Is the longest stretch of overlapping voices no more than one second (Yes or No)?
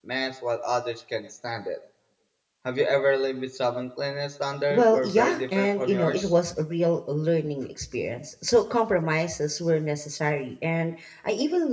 No